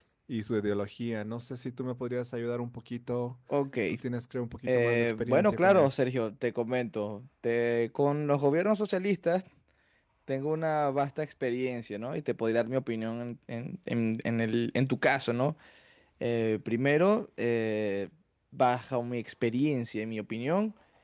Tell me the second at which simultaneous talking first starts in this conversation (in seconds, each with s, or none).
4.7 s